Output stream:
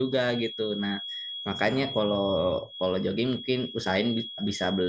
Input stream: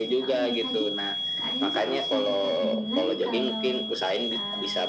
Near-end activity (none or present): present